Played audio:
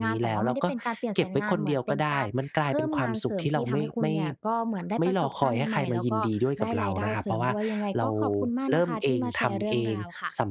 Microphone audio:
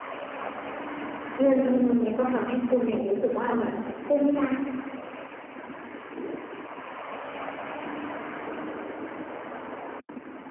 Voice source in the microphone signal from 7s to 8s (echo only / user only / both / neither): neither